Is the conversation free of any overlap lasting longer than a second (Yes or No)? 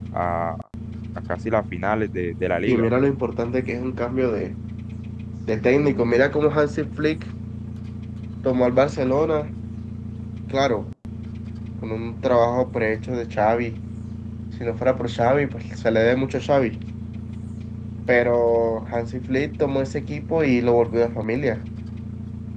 Yes